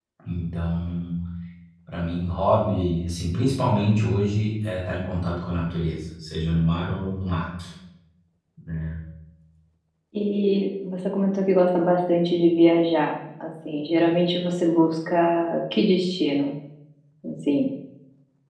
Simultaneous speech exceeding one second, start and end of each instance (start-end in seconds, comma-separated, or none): none